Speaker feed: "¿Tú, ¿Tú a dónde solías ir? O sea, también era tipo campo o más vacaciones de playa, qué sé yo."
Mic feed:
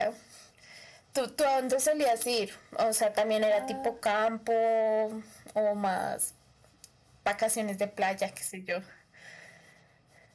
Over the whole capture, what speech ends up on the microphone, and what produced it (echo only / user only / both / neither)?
both